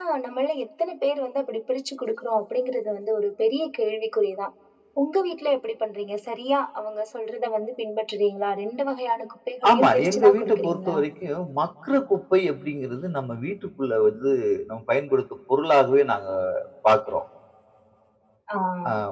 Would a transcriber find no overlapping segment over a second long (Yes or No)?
No